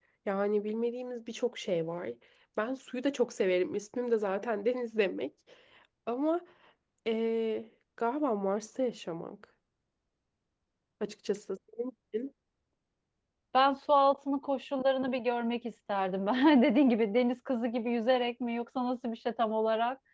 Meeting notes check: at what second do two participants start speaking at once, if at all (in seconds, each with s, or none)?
none